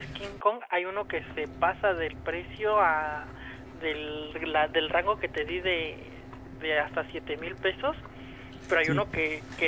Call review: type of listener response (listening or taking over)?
listening